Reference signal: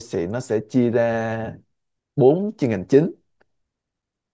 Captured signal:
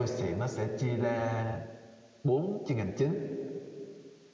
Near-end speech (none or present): none